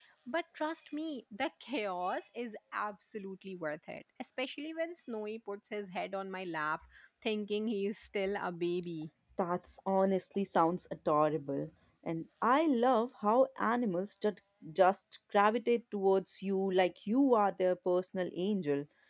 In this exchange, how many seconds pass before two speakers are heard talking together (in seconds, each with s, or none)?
none